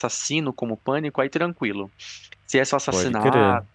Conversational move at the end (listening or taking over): listening